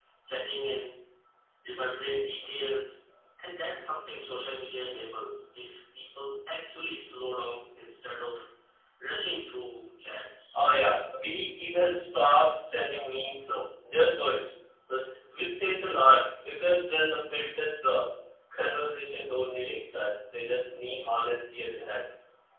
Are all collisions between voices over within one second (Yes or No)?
Yes